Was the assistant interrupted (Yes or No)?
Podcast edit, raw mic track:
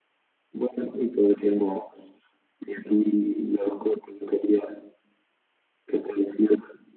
No